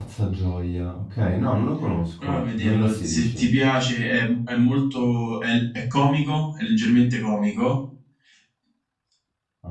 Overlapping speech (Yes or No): Yes